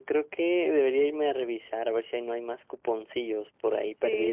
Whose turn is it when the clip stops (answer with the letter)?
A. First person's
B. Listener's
B